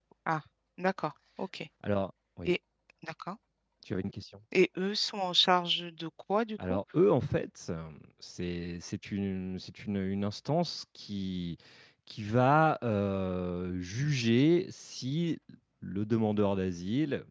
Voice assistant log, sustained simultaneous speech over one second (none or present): none